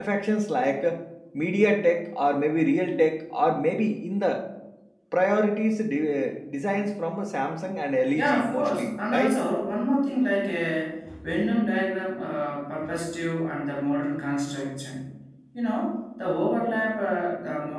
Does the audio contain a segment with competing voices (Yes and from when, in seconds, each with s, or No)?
Yes, from 8.2 s